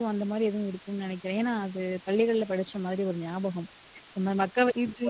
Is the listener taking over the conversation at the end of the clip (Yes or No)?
No